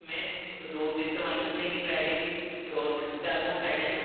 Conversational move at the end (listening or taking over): listening